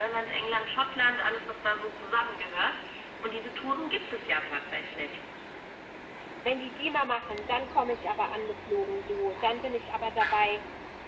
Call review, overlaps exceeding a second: none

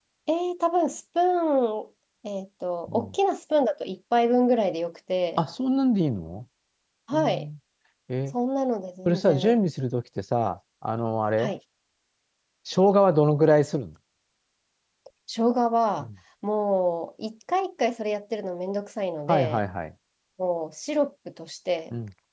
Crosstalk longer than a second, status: none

